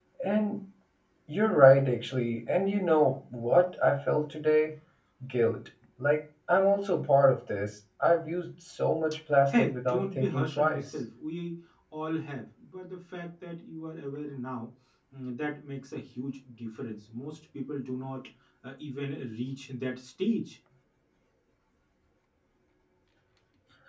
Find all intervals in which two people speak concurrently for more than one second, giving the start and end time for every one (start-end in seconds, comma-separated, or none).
9.5-10.8